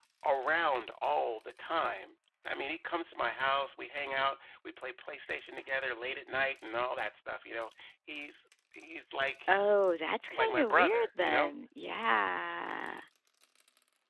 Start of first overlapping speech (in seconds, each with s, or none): 10.3 s